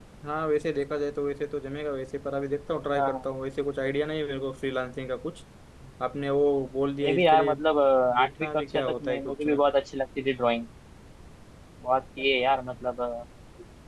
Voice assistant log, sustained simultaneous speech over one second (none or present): present